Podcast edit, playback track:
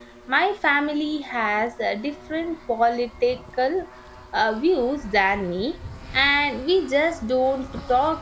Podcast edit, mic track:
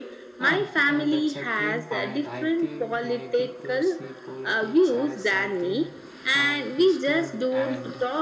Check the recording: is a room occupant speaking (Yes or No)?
Yes